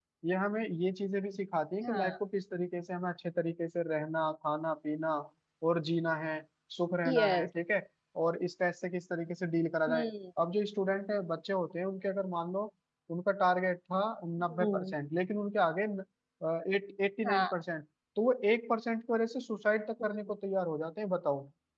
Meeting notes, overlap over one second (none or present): none